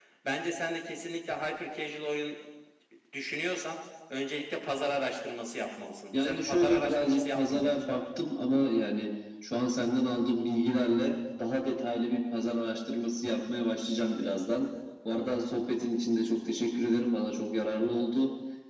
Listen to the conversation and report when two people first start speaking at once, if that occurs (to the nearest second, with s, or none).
6 s